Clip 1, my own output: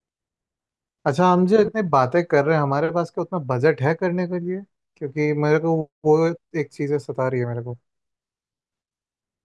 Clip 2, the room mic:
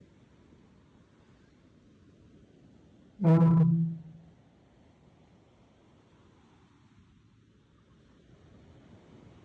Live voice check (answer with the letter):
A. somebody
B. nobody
A